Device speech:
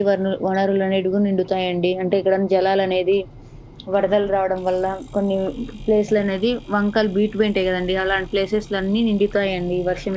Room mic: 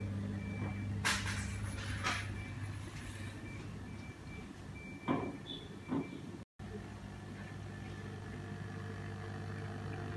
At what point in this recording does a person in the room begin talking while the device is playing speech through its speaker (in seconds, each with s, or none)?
none